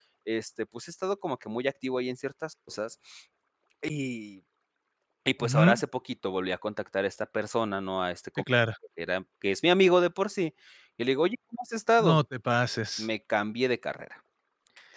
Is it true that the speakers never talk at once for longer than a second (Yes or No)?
Yes